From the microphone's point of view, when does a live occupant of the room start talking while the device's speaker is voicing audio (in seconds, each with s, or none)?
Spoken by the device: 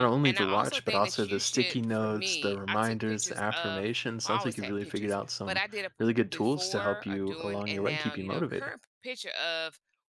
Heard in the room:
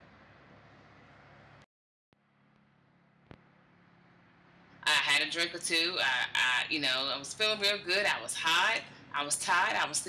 4.8 s